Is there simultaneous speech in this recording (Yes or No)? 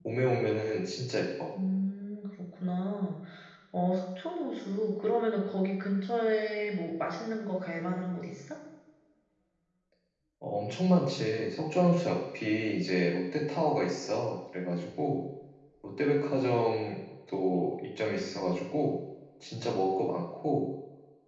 No